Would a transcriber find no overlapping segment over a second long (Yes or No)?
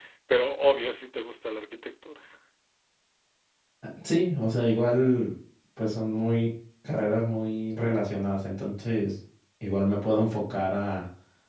Yes